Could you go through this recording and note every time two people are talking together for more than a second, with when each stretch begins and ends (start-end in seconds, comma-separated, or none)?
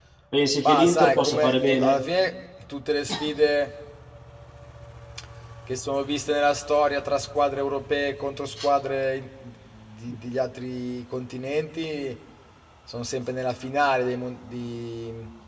0.6-1.9